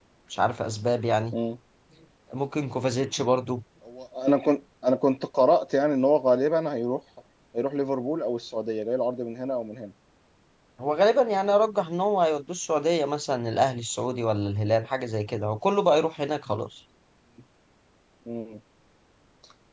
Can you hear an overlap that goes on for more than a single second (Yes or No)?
No